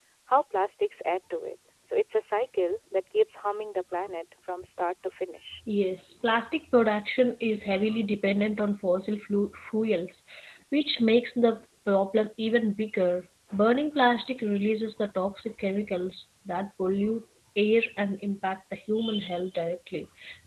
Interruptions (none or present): none